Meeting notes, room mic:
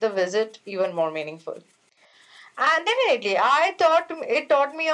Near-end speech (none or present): none